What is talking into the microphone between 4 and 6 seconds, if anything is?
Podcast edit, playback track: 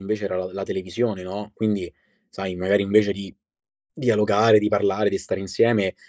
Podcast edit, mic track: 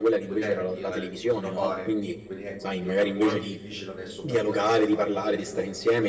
both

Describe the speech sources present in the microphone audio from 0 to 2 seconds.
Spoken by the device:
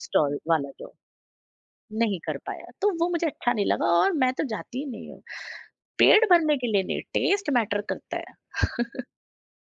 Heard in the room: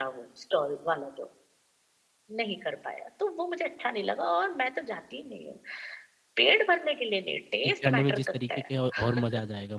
echo only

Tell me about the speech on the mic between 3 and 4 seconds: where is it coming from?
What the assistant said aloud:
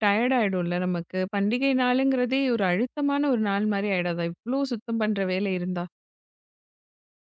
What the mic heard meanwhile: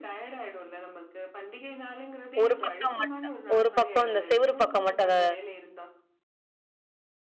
both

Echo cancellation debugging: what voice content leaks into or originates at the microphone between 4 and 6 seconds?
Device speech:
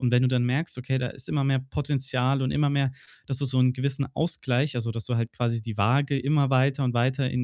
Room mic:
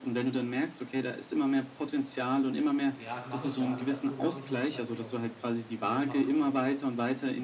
both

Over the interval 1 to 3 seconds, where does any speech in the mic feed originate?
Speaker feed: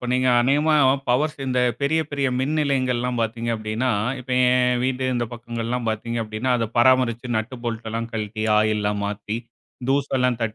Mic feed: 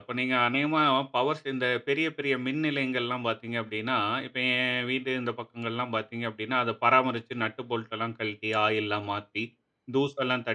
echo only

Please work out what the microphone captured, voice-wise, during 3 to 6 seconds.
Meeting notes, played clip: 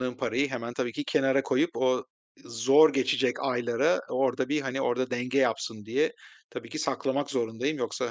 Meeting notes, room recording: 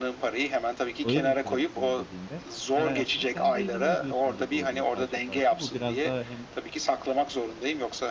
both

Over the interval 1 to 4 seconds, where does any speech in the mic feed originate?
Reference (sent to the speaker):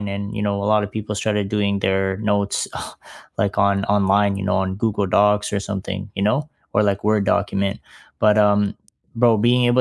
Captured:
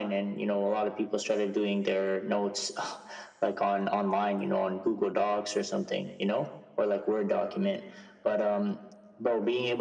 echo only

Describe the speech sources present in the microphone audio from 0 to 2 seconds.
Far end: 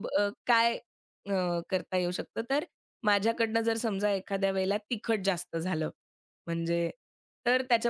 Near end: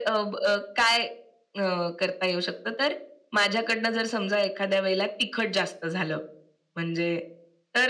echo only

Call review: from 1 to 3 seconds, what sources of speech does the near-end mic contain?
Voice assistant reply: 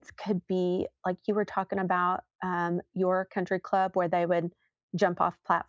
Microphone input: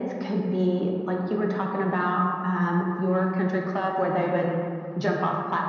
echo only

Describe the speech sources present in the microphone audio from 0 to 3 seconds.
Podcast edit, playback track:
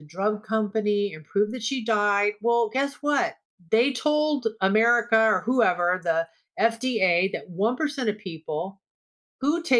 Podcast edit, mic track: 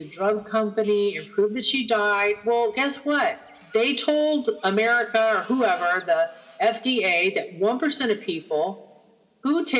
echo only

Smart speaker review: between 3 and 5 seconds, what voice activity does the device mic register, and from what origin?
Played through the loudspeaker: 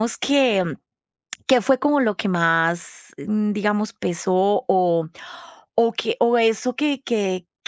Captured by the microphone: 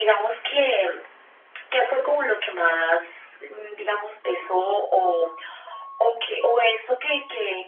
echo only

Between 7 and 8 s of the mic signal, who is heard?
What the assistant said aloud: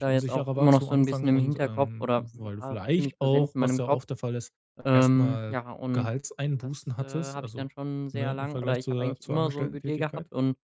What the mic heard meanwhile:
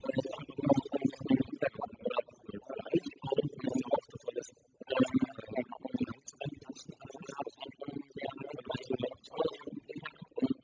echo only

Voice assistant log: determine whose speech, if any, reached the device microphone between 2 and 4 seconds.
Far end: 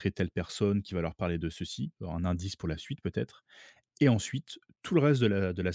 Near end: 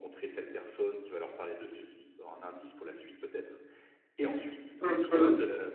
echo only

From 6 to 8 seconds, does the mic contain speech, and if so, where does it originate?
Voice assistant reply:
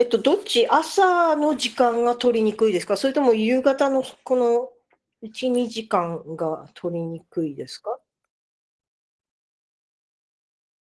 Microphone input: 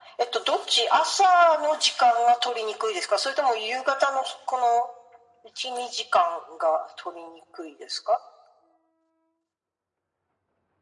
echo only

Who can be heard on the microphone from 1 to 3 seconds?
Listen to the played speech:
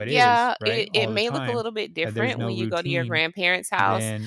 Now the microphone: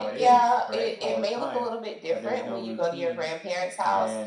echo only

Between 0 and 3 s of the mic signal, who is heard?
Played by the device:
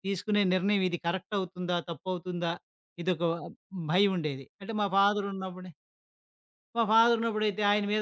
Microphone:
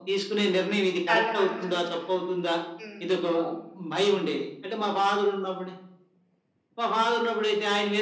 both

